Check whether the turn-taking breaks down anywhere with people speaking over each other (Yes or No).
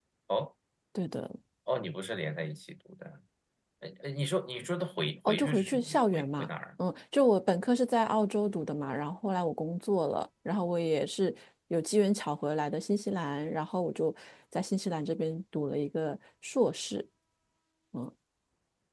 Yes